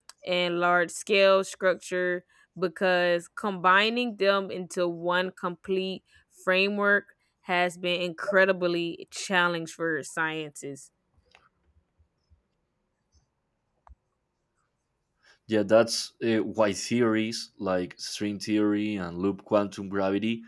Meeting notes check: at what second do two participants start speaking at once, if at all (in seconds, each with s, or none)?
none